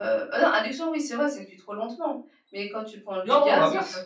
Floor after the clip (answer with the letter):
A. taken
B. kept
B